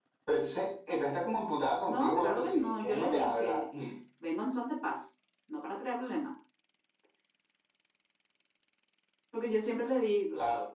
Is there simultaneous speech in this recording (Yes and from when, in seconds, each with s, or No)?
Yes, from 1.9 s